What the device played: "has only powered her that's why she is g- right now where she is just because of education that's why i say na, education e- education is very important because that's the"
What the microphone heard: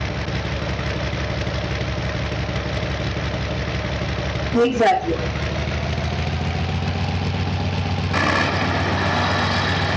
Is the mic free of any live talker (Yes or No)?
No